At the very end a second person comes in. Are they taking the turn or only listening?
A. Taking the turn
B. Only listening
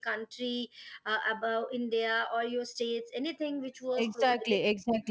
A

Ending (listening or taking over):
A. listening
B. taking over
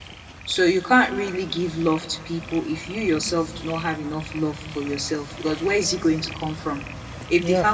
A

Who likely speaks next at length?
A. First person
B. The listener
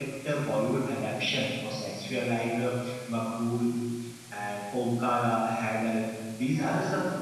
A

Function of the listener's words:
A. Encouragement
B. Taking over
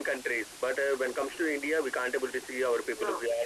A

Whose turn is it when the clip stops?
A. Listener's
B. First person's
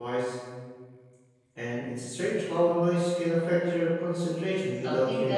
A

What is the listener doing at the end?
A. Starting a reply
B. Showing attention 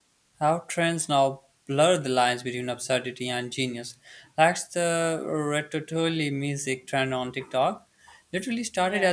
B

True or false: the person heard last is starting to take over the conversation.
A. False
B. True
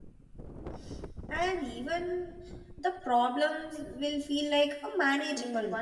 B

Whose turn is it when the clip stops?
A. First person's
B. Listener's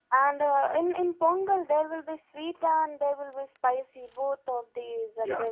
B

